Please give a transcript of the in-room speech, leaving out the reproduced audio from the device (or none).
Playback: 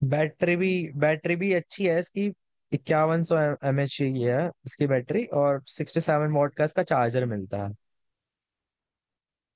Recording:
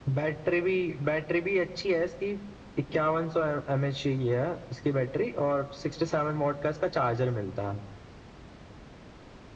none